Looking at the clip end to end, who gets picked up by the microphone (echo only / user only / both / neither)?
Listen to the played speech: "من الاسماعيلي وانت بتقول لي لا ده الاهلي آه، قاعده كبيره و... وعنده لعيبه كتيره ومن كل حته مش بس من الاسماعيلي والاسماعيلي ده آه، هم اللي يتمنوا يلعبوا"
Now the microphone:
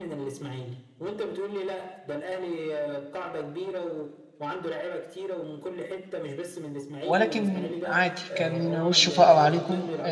both